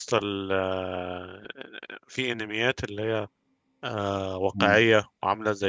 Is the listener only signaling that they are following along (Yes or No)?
Yes